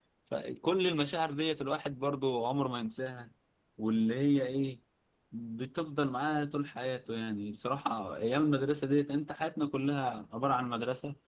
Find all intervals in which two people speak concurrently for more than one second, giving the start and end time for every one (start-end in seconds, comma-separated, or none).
none